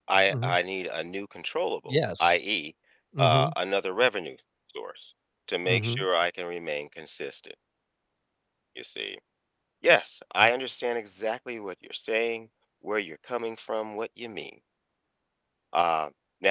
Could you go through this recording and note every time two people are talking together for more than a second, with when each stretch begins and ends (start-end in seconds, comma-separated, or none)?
none